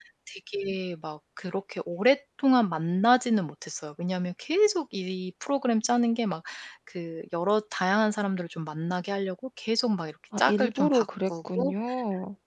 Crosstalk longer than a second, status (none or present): present